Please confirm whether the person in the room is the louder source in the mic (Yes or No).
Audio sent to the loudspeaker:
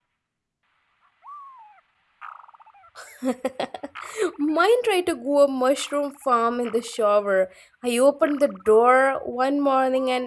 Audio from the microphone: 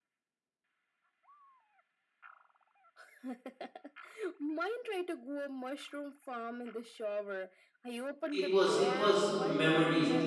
Yes